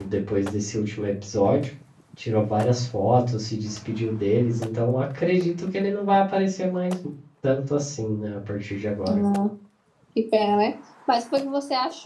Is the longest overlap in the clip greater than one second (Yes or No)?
No